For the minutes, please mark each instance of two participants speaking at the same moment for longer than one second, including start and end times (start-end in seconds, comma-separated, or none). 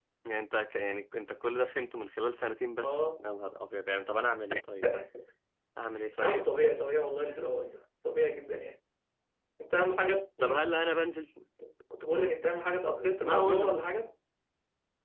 none